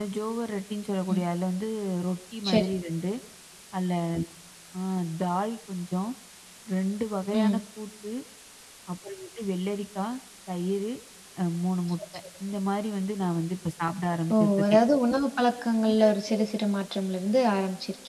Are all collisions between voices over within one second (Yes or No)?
Yes